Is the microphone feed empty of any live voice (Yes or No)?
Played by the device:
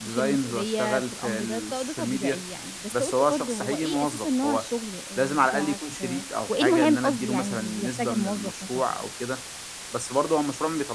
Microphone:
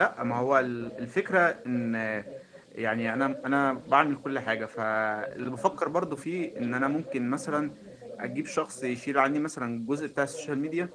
No